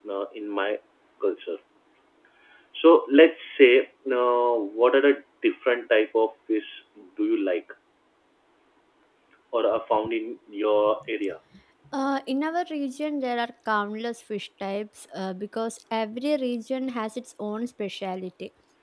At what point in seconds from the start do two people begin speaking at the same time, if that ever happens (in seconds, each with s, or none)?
none